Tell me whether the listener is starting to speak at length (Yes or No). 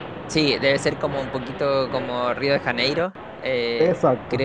No